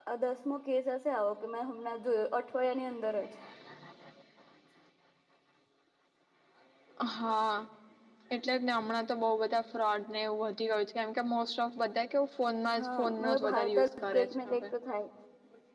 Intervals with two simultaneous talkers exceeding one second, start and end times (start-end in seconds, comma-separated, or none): 12.8-14.6